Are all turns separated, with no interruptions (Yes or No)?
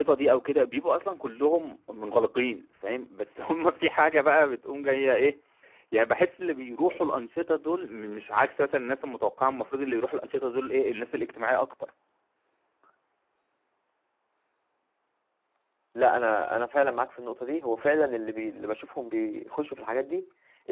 Yes